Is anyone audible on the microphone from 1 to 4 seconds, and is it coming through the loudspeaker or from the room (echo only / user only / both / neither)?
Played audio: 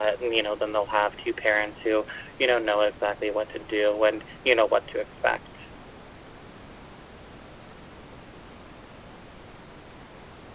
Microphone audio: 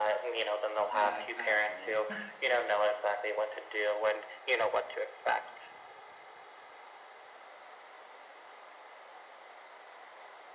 both